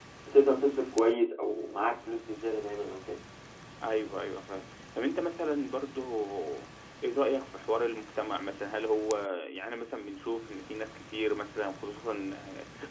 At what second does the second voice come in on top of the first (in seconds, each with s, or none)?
none